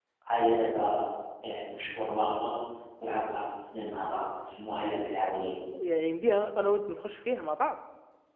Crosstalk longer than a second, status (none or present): none